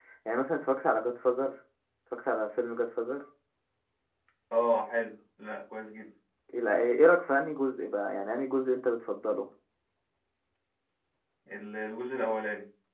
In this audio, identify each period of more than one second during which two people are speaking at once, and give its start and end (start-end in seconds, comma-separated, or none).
none